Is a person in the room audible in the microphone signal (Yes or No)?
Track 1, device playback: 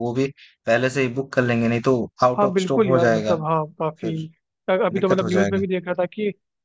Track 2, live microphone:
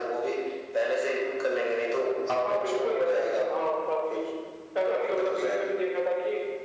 No